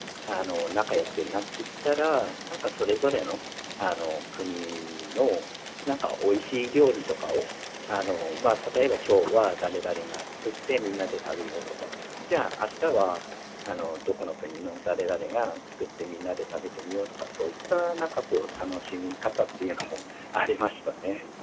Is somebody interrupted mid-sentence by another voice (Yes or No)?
No